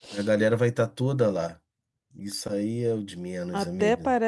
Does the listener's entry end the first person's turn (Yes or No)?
Yes